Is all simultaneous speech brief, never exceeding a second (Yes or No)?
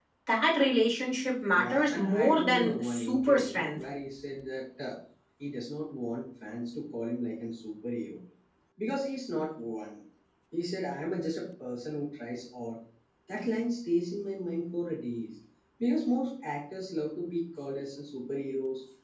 No